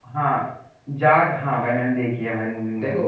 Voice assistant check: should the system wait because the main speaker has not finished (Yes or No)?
No